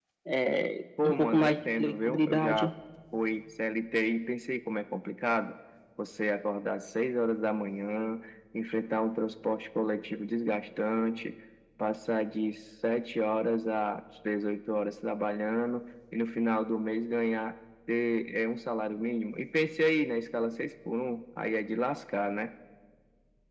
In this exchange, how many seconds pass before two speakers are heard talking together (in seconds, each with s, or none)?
1.0 s